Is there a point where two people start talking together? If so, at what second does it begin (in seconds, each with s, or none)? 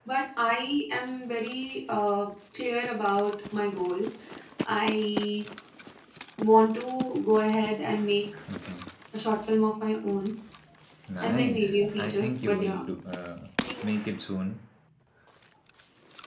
11.2 s